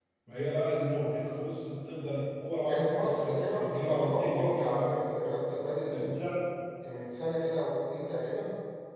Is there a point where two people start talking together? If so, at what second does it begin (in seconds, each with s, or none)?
2.7 s